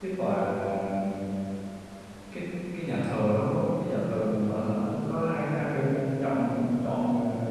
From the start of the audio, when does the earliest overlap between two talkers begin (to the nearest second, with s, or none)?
none